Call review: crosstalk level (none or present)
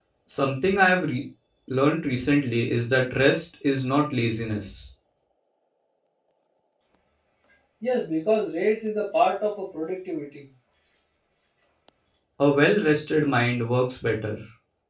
none